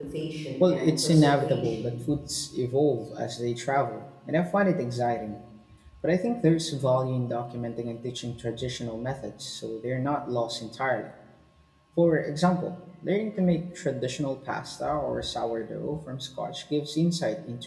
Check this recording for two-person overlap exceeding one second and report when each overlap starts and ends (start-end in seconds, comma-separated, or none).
0.6-1.9